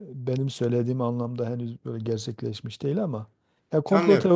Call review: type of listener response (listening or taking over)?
listening